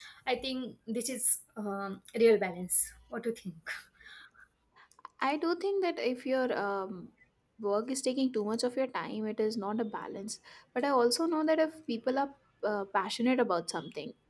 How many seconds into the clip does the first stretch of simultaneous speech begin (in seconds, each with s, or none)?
none